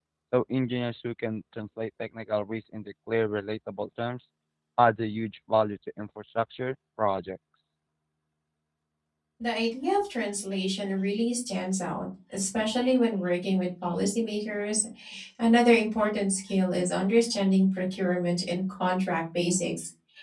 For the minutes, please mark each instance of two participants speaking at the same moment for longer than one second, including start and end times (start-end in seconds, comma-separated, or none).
none